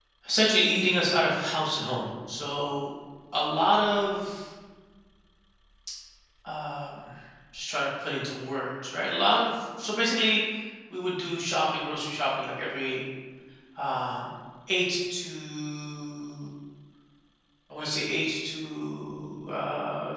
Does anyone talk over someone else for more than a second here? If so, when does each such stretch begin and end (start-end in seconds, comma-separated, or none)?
none